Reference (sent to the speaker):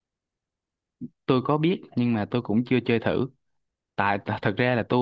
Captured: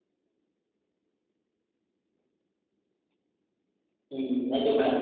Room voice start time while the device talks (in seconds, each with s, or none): 4.1 s